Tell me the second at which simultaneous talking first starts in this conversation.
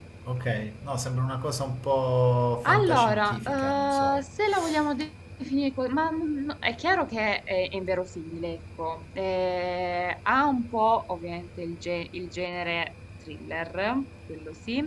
2.6 s

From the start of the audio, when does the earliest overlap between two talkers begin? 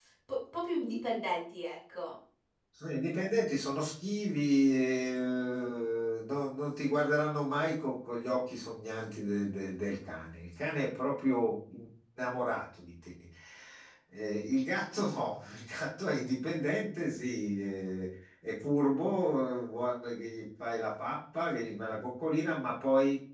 none

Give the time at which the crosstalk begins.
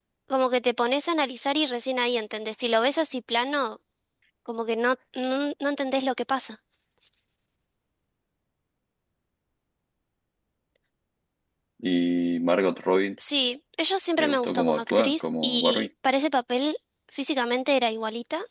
14.2 s

